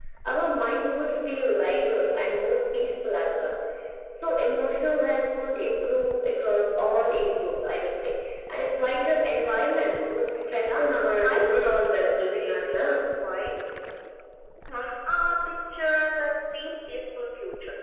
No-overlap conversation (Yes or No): No